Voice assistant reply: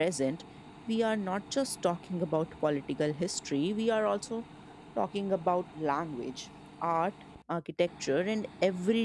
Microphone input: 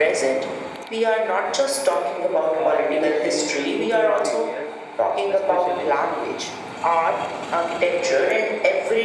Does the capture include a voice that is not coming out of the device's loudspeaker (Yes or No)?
Yes